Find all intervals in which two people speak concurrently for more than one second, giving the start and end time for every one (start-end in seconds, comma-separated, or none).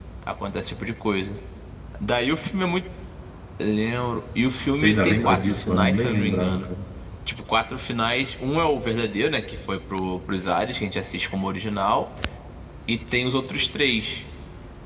4.8-6.7